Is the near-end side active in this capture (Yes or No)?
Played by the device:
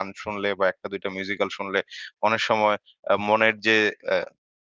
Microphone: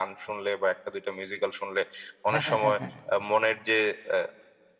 Yes